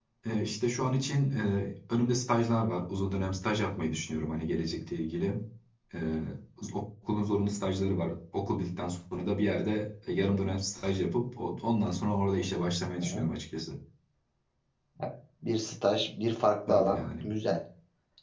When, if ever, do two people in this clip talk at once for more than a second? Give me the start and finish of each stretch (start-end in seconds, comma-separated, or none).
none